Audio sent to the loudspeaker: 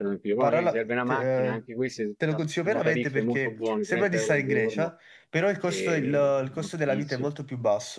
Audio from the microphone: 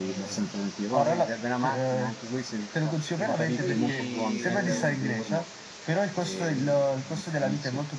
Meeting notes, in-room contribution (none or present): present